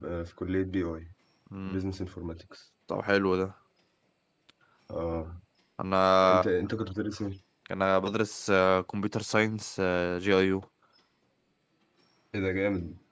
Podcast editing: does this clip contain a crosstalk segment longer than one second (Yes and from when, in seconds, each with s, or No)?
No